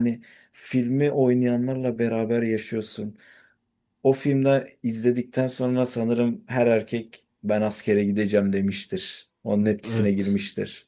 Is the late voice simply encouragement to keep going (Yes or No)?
No